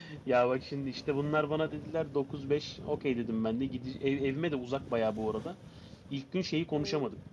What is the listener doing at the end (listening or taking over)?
listening